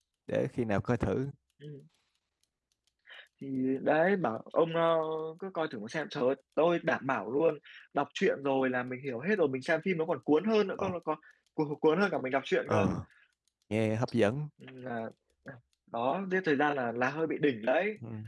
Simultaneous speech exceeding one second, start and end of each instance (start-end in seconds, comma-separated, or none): none